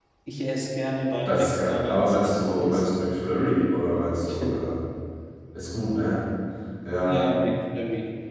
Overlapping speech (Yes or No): Yes